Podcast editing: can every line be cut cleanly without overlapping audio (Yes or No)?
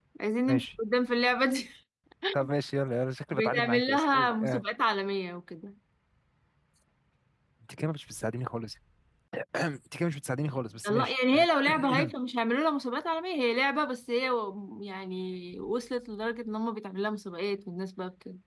No